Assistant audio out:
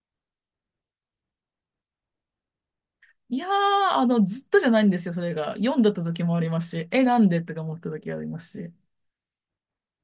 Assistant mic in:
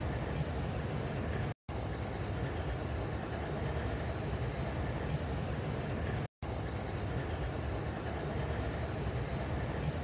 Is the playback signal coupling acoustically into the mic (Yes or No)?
No